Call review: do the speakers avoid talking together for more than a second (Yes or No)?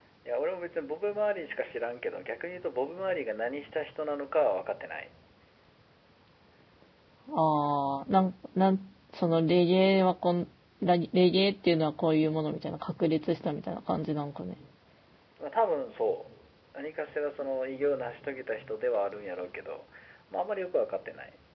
Yes